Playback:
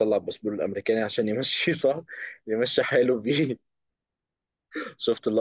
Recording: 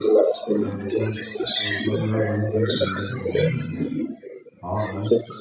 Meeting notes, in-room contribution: present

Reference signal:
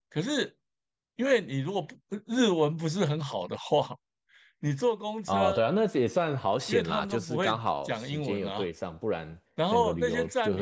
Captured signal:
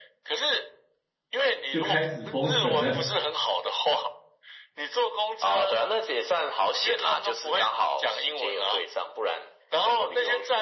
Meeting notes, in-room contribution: present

